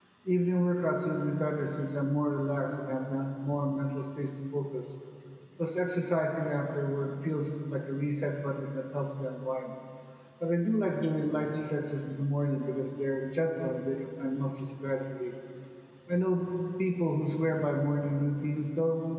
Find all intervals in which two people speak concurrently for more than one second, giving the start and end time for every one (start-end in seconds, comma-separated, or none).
none